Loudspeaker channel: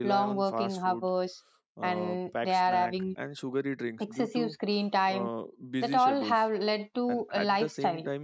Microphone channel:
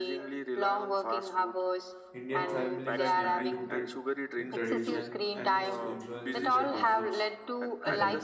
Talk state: both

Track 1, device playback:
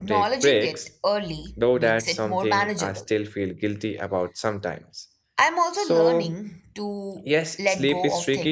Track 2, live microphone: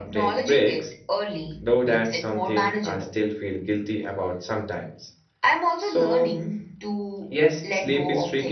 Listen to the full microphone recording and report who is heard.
echo only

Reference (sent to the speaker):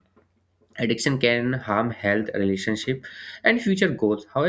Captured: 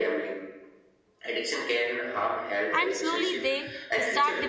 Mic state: both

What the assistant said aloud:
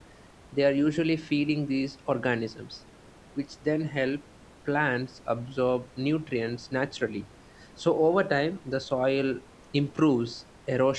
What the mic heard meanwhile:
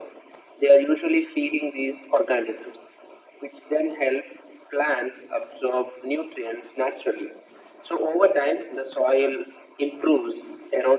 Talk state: echo only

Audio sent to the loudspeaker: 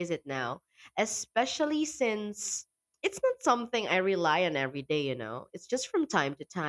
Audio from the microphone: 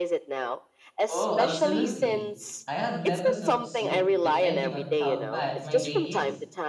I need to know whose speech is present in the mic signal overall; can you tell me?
both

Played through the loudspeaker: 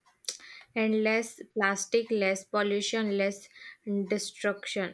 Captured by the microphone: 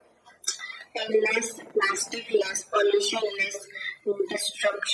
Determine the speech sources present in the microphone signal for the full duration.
echo only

